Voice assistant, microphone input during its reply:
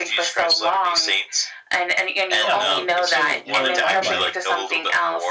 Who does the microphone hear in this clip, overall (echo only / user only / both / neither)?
both